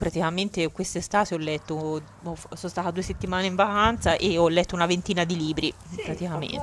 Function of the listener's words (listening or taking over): taking over